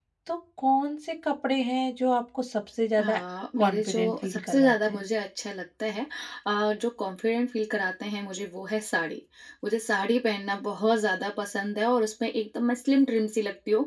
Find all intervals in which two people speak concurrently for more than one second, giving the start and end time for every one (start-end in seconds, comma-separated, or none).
3.6-5.0